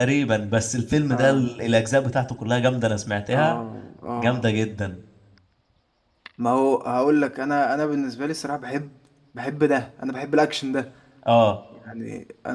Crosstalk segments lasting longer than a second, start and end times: none

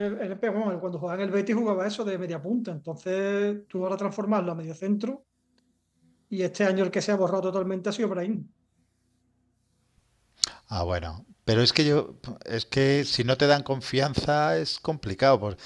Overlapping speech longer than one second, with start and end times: none

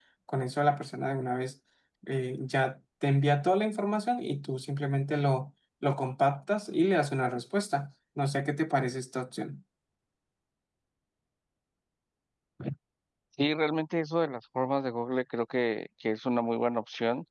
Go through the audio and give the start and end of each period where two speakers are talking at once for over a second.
none

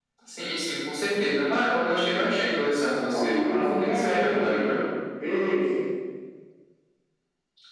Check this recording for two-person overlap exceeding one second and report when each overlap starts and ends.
3.1-4.7

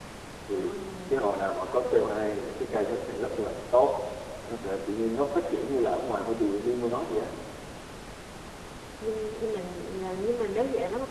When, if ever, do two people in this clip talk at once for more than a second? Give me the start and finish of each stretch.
none

